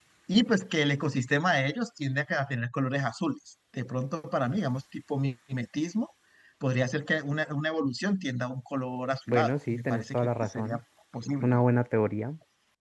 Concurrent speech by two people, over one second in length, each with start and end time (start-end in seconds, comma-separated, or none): 9.3-10.8